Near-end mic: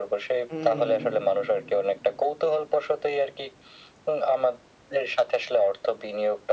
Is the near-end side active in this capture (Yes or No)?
Yes